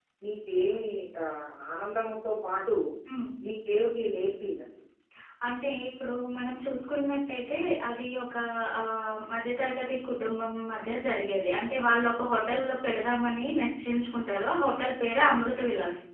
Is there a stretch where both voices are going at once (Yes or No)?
No